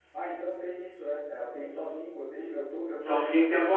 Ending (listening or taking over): taking over